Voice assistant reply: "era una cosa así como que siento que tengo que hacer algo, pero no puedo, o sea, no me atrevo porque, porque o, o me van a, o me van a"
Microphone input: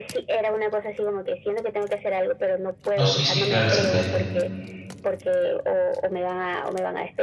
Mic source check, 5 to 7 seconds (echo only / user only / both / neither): echo only